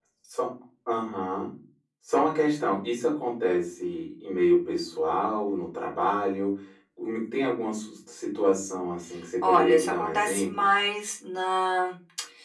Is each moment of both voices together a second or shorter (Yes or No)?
No